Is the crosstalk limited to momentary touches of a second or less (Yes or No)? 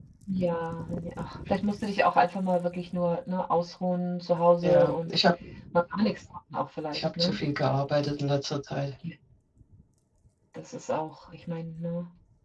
Yes